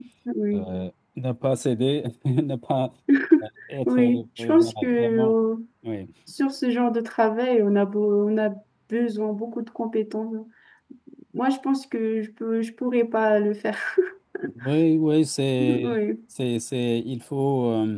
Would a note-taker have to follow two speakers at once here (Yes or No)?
Yes